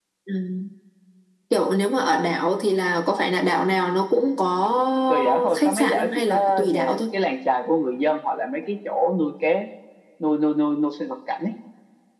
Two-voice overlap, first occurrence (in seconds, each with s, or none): 5.1 s